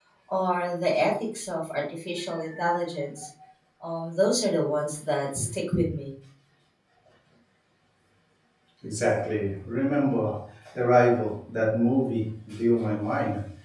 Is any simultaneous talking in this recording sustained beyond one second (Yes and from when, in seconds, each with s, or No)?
No